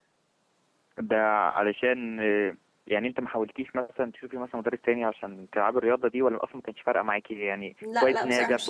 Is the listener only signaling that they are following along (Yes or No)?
No